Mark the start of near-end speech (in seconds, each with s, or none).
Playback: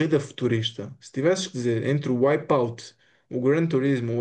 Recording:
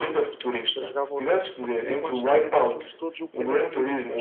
0.8 s